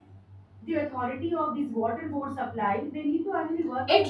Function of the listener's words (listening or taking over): taking over